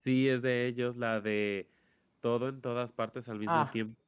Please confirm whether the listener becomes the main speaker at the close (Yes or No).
Yes